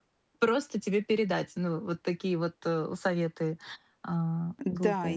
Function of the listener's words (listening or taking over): taking over